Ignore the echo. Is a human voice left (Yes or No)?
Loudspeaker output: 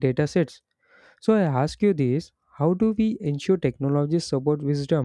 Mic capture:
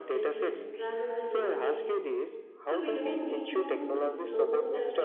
Yes